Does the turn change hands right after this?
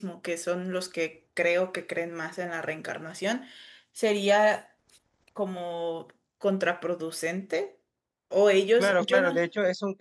Yes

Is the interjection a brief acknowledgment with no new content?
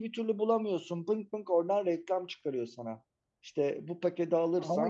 Yes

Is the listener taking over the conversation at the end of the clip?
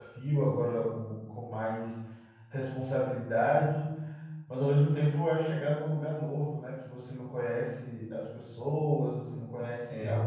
No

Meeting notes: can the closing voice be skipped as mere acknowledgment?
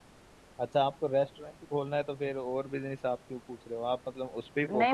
No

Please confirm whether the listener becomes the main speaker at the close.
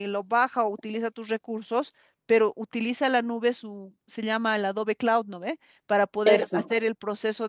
No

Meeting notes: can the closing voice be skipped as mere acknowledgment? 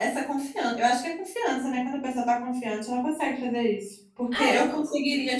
Yes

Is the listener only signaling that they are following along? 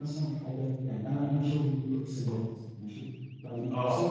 Yes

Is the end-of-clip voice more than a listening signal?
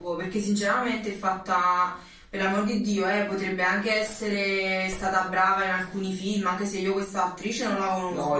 Yes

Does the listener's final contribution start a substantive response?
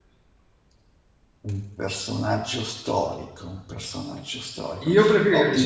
Yes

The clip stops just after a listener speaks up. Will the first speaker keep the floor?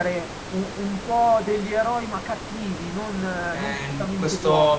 No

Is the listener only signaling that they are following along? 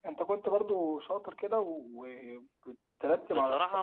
No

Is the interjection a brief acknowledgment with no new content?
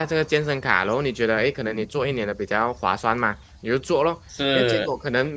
Yes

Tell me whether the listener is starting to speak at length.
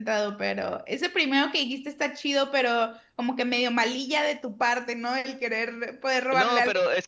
Yes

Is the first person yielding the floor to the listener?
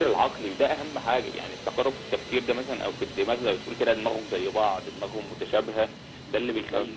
No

